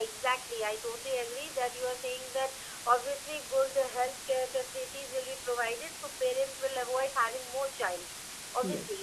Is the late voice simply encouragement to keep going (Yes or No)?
Yes